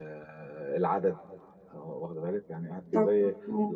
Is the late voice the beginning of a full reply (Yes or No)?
No